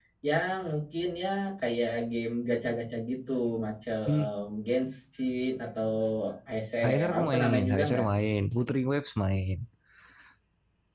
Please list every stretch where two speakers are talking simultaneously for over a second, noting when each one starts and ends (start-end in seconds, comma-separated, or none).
6.8-8.1